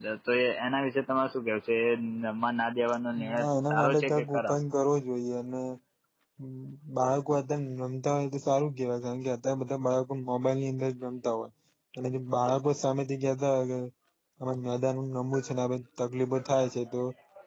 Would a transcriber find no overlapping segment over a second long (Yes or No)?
No